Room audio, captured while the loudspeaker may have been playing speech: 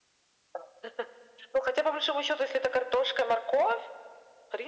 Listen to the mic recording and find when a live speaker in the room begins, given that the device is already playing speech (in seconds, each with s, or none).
none